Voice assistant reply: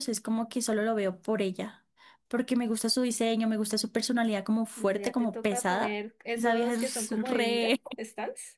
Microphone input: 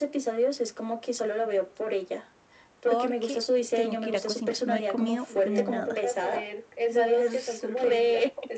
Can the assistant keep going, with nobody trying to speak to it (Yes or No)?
No